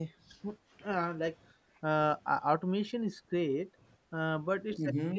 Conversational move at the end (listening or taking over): listening